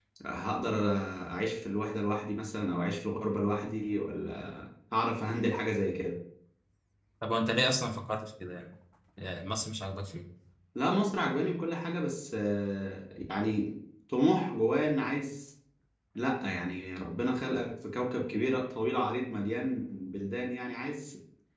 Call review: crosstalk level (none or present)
none